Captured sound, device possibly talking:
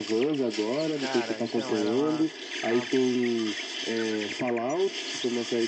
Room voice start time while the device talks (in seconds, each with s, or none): 1.0 s